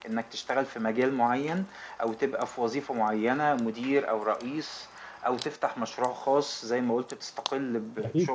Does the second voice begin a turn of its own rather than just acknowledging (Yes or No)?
No